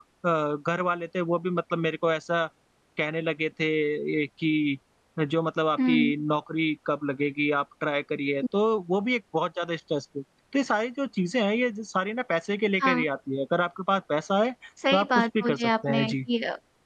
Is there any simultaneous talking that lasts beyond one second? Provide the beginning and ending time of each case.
14.9-16.1

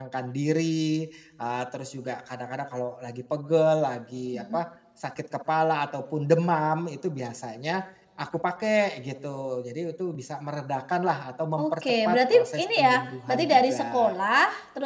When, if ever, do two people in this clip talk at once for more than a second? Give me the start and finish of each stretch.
11.6-14.1

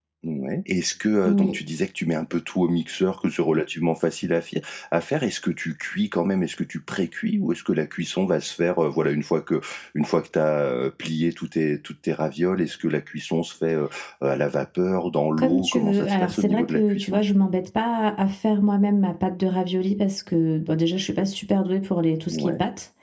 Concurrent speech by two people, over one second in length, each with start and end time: 15.4-17.2

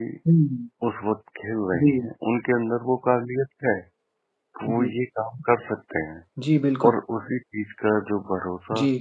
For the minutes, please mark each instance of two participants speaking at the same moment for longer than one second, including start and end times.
none

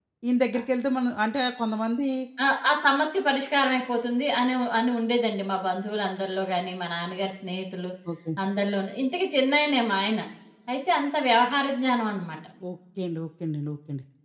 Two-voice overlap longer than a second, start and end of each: none

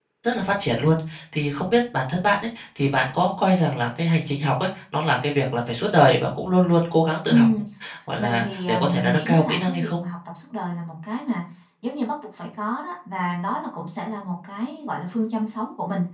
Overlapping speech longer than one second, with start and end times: 8.2-9.9

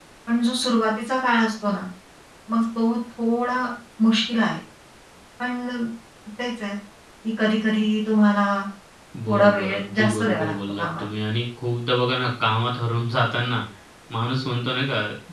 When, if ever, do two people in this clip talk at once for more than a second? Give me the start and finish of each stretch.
9.3-11.0

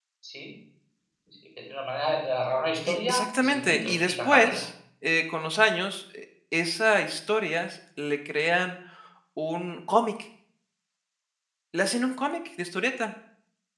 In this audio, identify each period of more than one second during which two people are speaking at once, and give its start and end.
2.9-4.6

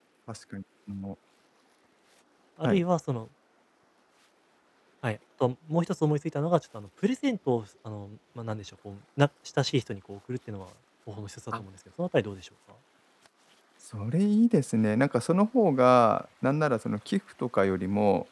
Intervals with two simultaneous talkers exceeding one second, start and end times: none

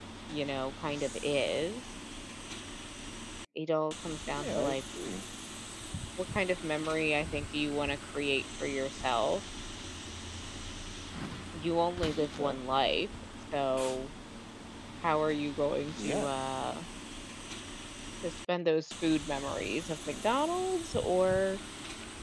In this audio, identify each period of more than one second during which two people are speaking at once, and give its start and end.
none

